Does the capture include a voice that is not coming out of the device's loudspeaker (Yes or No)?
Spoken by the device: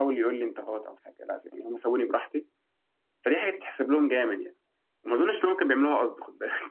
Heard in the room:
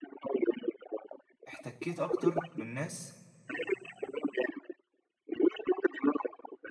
Yes